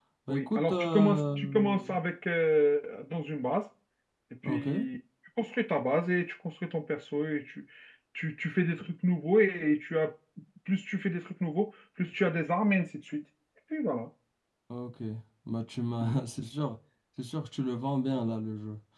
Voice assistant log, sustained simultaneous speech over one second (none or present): present